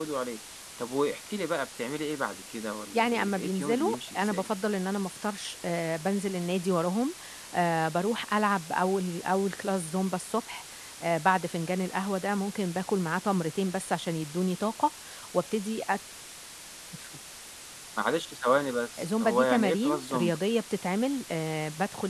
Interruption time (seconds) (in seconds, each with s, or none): 2.9 s